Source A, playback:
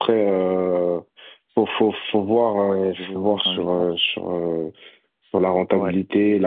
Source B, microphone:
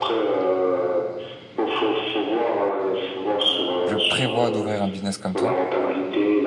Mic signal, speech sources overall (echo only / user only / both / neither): both